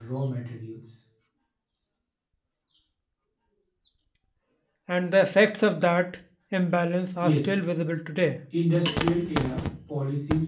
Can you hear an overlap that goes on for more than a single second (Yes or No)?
No